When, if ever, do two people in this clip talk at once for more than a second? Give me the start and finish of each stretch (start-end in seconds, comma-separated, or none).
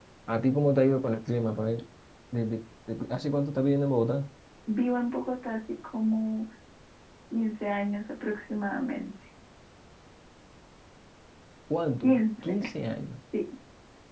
none